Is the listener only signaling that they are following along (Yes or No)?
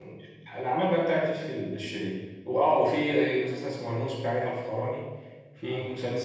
Yes